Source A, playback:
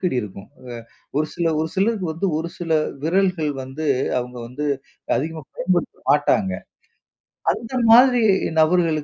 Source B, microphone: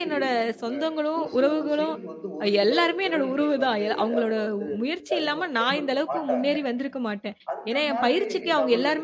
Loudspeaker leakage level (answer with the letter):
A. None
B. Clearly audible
B